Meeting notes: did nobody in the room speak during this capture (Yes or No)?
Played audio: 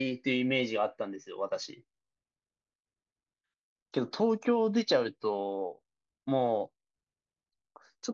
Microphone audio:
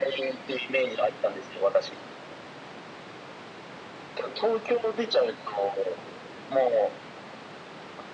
Yes